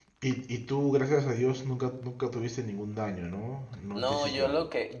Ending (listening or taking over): taking over